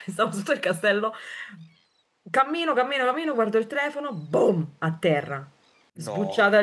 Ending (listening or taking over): listening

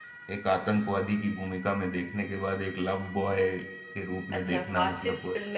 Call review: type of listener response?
taking over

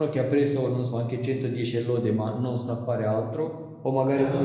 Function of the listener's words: listening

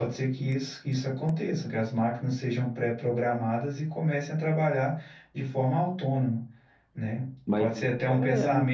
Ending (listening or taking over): listening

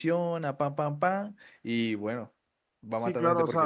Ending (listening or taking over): taking over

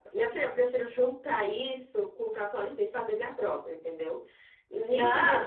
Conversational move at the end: listening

